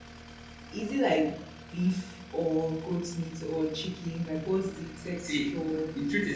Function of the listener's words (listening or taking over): taking over